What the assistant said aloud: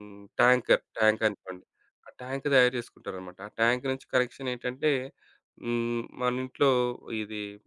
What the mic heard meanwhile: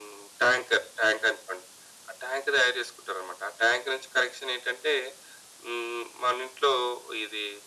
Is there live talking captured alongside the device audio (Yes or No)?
No